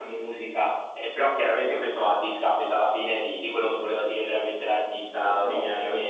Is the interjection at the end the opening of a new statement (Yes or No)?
Yes